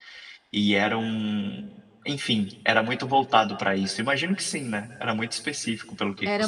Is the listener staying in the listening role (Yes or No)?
No